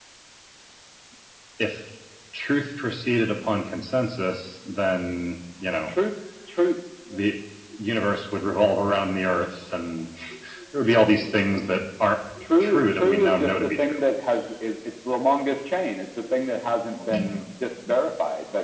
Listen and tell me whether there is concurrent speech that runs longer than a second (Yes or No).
Yes